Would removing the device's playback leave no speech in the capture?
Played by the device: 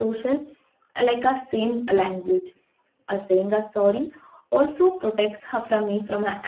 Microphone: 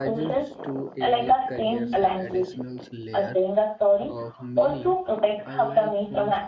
No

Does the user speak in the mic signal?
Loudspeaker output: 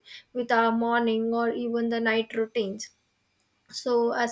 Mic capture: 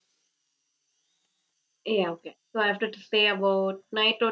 Yes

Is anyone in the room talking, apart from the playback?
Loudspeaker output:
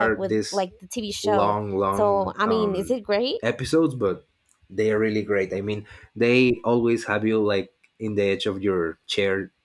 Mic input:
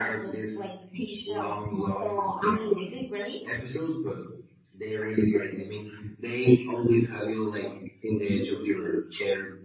No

